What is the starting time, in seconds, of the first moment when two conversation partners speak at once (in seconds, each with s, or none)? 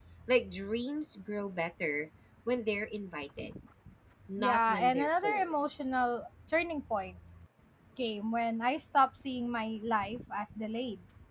4.4 s